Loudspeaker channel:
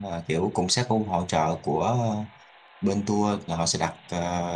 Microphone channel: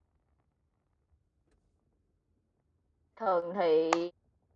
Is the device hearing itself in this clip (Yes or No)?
No